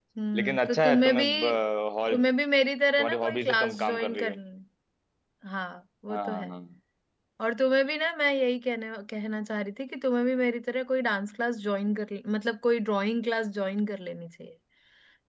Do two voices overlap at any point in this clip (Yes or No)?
Yes